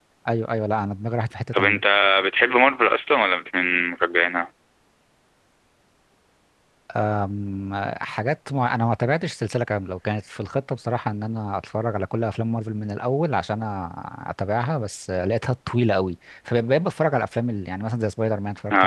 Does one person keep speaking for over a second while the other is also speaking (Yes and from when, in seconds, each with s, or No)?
No